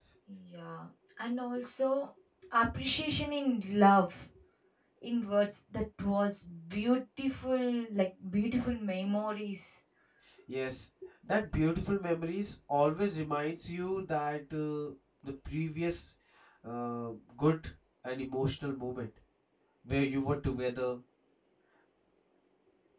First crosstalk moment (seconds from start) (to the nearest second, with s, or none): none